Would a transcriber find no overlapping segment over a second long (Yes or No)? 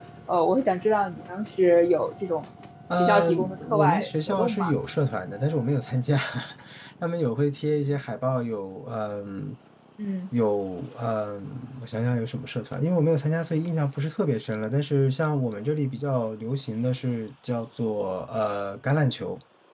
No